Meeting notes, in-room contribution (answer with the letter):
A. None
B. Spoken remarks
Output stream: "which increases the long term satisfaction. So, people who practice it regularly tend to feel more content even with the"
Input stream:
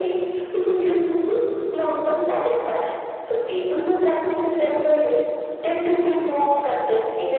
A